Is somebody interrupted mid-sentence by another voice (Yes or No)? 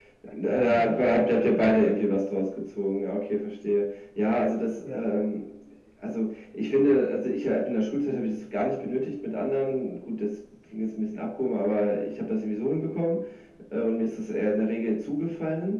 Yes